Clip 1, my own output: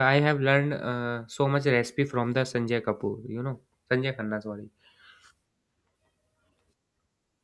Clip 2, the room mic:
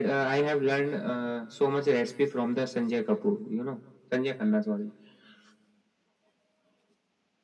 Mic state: echo only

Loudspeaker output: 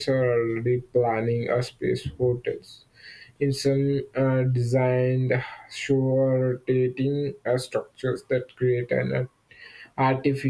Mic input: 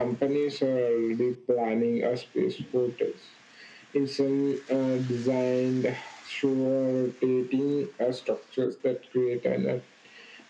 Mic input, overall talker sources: echo only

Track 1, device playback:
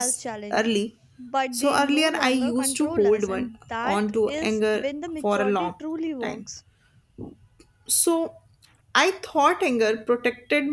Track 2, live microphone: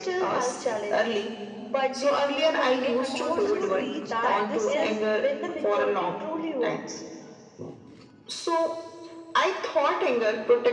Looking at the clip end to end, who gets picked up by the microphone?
both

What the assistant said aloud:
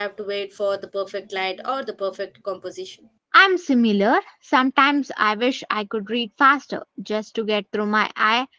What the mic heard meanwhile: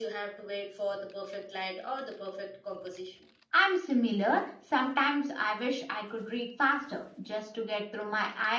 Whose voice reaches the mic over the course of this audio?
echo only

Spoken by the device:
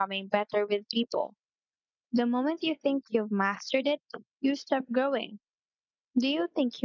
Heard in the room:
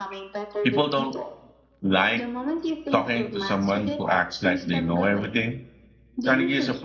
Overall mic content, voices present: both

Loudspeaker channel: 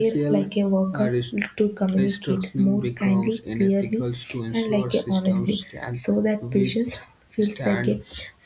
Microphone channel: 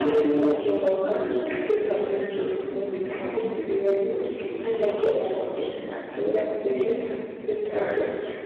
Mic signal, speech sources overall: echo only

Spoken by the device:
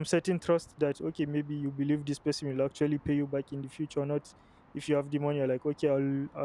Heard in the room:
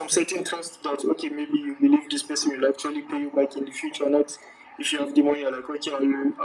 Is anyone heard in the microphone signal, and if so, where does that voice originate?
echo only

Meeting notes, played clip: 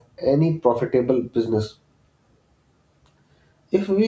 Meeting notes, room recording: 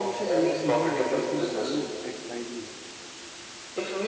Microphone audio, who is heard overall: both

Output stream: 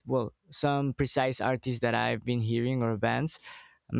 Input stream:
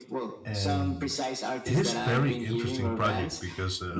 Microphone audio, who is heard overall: both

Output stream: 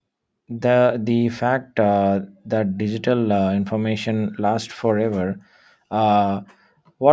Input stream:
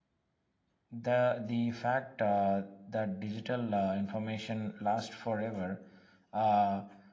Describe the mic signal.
echo only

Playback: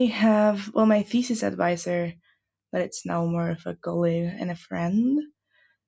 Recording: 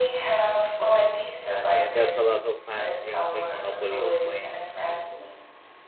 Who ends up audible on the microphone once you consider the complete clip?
both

